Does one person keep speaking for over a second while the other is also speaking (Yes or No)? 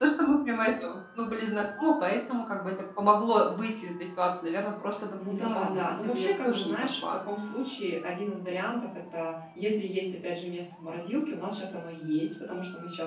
Yes